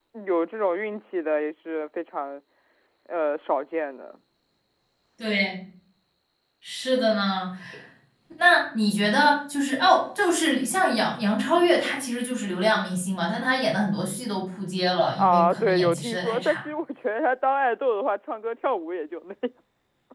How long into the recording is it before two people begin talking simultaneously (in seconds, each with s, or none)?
15.1 s